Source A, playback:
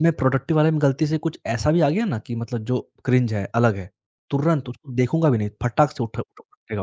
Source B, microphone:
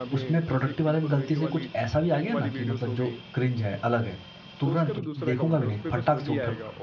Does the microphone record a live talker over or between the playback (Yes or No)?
Yes